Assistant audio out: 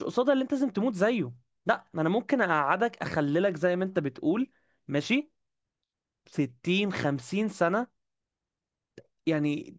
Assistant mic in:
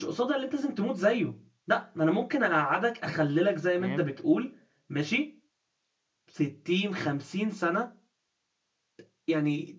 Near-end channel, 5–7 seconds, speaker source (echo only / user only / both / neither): echo only